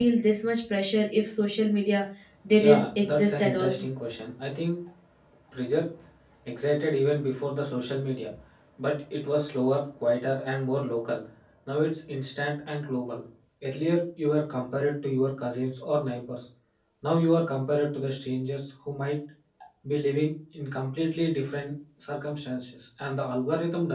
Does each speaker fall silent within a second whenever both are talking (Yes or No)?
No